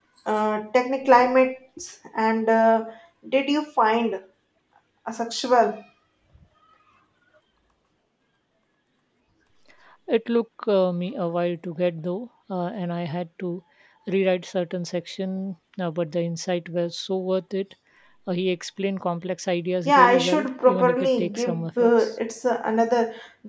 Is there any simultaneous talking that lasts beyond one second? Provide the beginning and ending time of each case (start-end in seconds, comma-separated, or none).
19.9-22.1